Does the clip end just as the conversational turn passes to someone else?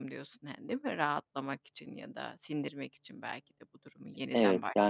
Yes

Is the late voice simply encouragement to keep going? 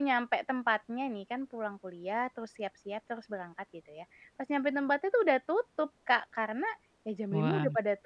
Yes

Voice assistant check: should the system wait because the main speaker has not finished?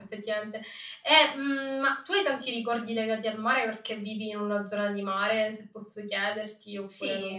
No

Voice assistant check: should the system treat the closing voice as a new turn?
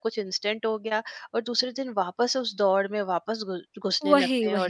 No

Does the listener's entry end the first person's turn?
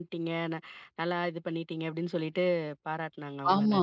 Yes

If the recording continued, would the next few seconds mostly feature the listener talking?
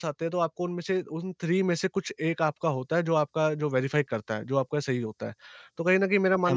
Yes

